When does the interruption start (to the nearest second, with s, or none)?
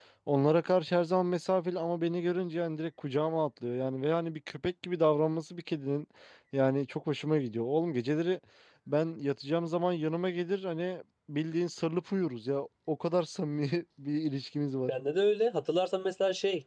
none